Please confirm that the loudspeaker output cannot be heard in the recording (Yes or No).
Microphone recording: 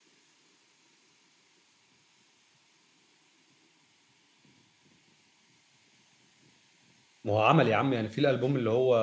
Yes